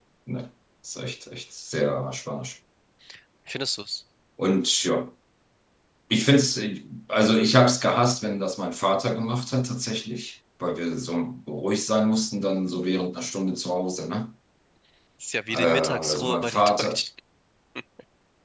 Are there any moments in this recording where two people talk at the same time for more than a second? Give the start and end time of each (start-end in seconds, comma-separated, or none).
15.5-17.0